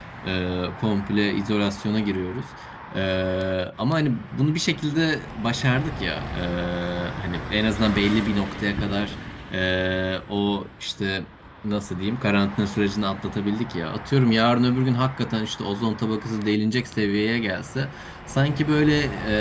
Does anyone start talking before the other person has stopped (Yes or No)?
No